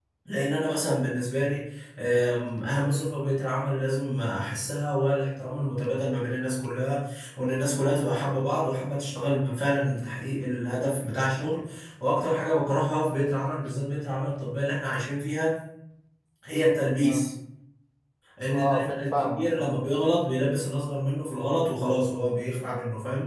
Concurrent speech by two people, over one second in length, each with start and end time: 18.5-19.9

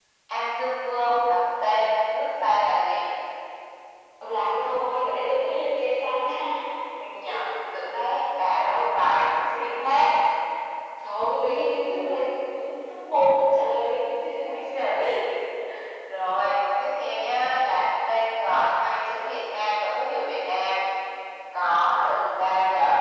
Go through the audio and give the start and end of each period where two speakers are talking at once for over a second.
none

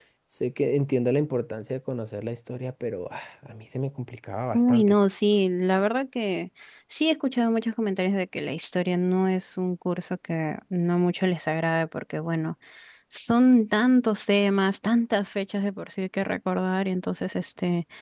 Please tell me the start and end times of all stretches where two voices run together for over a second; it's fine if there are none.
none

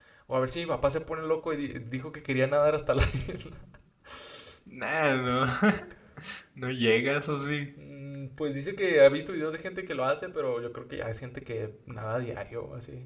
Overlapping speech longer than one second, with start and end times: none

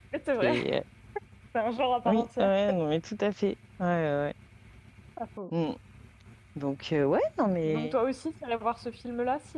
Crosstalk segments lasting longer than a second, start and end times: none

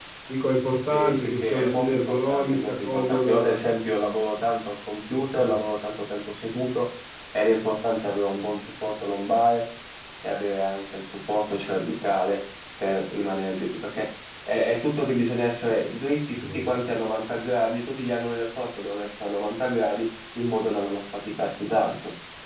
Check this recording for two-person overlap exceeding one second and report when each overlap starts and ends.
0.9-3.6

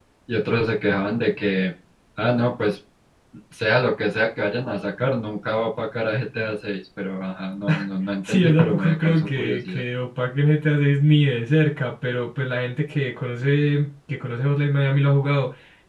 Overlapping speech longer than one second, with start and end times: 8.3-9.8

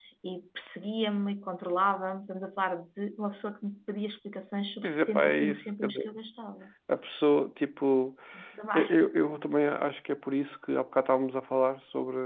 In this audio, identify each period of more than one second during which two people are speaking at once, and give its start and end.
4.8-6.1

